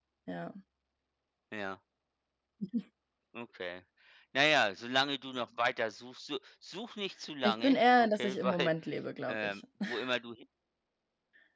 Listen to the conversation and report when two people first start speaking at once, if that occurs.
7 s

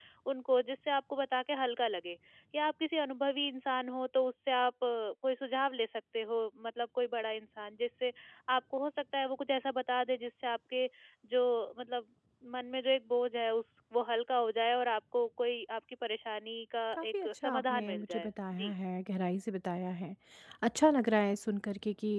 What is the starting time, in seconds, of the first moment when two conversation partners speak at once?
17 s

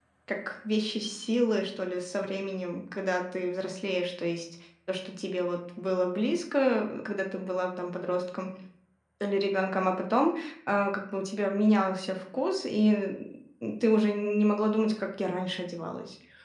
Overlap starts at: none

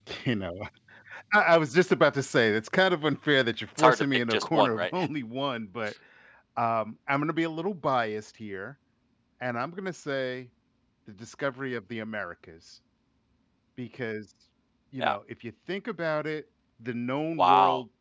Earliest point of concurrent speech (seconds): 4 s

